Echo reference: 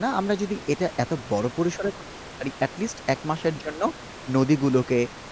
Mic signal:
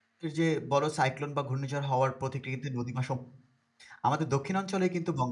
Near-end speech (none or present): present